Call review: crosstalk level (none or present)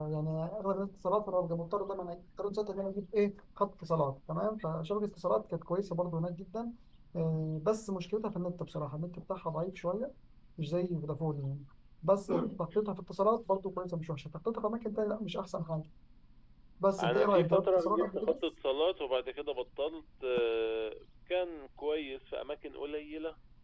present